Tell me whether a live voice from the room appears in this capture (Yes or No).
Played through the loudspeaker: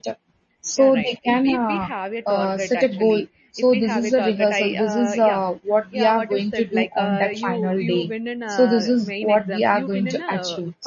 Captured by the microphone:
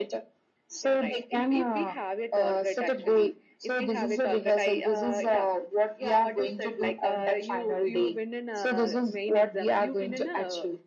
No